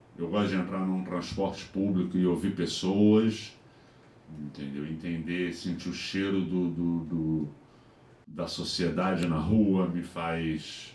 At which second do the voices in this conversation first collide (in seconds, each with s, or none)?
none